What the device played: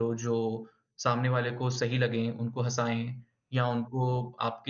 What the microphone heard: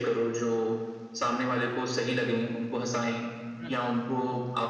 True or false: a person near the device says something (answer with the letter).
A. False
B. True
B